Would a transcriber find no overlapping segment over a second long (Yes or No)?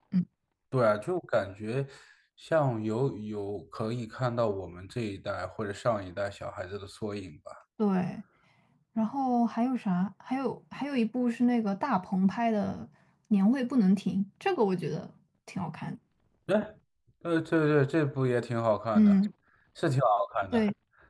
Yes